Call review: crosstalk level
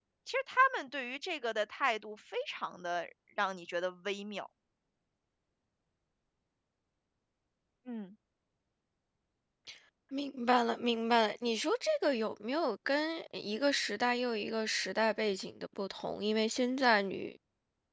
none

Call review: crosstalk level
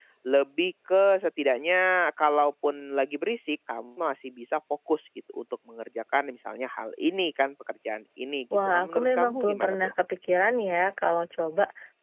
present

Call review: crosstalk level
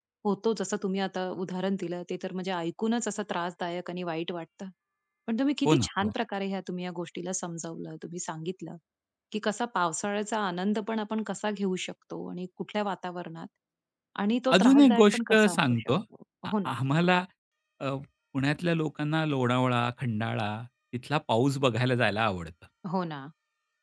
present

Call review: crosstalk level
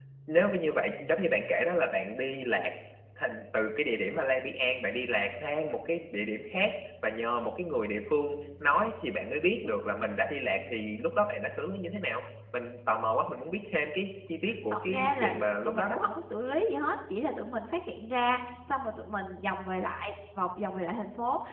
present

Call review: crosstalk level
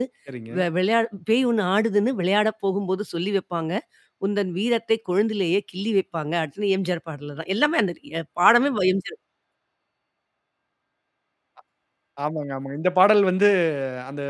none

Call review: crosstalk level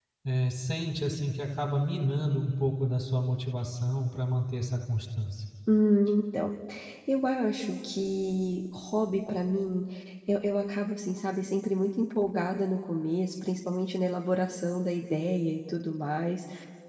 none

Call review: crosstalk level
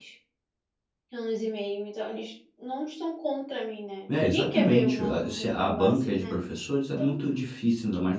present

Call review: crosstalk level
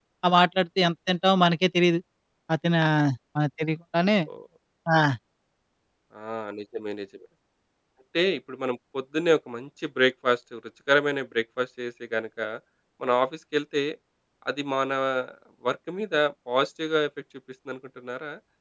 none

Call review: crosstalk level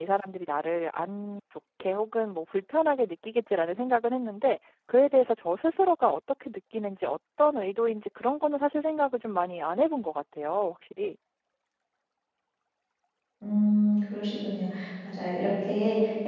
none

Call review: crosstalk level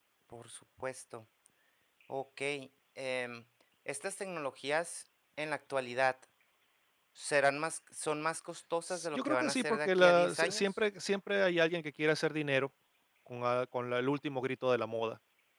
present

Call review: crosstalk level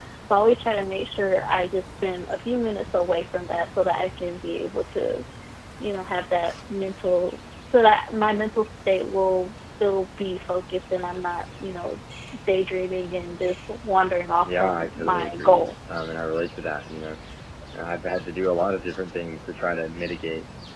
present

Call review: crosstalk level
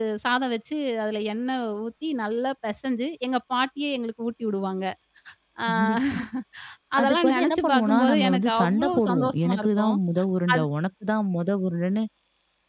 present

